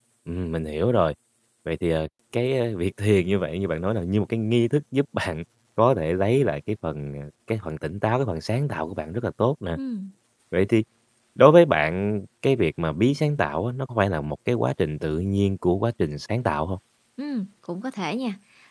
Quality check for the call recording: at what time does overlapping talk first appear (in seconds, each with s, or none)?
none